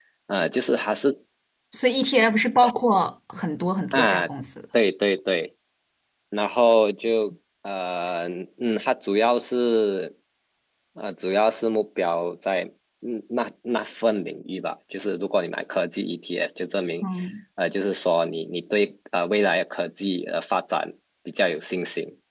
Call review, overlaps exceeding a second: none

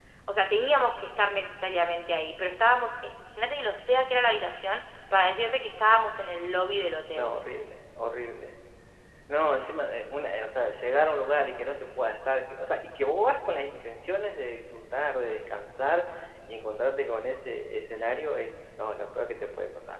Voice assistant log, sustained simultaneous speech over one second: none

